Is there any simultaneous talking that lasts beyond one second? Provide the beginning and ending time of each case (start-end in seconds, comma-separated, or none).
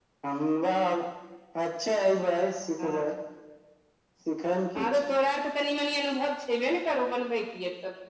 none